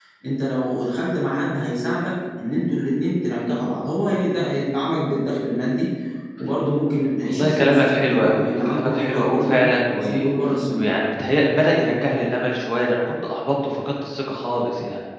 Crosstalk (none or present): present